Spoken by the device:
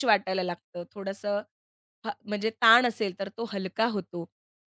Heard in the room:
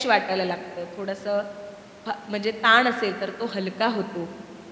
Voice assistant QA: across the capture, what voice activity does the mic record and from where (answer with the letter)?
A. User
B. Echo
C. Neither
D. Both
B